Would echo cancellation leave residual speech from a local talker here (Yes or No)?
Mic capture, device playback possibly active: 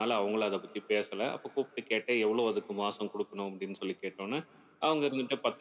No